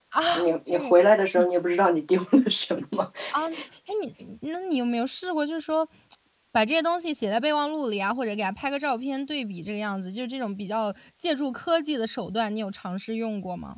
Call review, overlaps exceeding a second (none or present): none